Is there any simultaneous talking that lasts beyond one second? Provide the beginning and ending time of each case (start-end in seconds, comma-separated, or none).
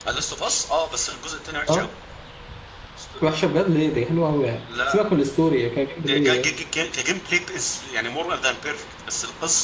none